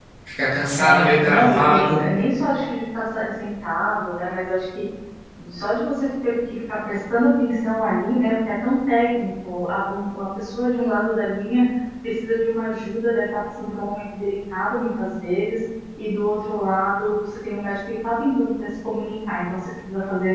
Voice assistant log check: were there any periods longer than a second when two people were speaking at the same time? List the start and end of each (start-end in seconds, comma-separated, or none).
0.7-2.0